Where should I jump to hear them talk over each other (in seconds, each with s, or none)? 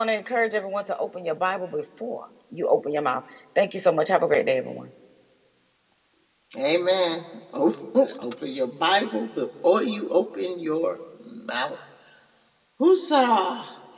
none